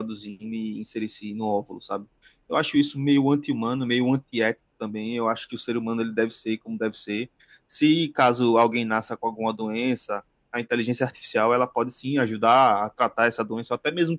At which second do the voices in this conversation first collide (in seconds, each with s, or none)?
none